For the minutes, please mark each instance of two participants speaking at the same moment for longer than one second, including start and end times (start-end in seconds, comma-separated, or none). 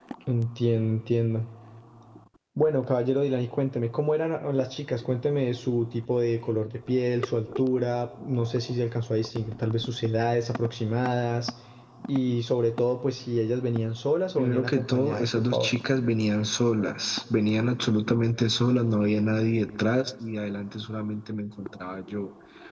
14.4-15.7